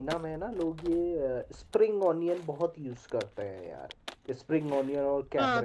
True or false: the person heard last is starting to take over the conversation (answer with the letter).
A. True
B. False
A